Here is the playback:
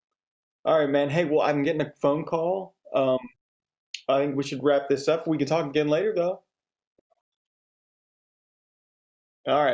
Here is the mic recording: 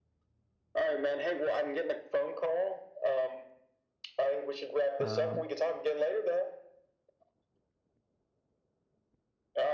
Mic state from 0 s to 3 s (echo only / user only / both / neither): echo only